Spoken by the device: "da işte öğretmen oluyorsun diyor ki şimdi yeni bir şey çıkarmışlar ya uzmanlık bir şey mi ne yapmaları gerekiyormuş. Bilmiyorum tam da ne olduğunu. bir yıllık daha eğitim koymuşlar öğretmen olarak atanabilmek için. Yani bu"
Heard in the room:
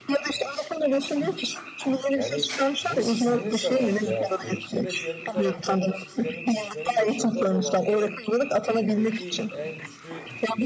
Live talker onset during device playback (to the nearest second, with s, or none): 2 s